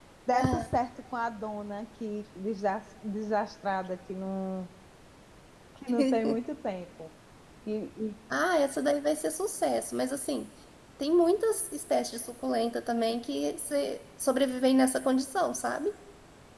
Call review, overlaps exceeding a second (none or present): none